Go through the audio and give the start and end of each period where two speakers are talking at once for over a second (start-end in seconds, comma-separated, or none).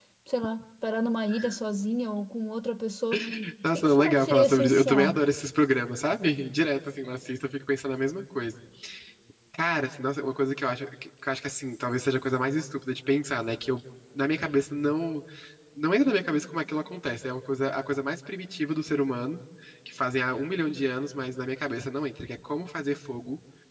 3.8-5.2